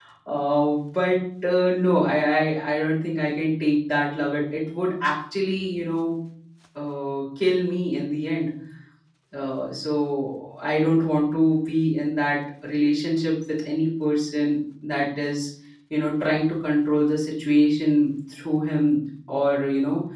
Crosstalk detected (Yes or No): No